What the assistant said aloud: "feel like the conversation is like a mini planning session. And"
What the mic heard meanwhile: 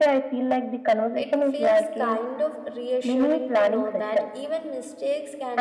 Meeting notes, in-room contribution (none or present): present